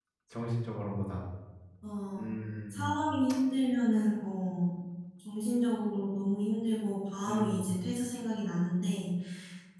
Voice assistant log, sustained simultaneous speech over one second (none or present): none